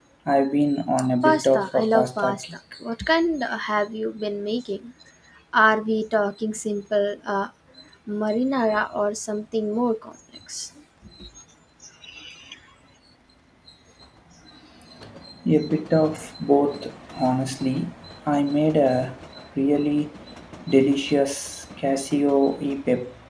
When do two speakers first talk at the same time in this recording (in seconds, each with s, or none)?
1.2 s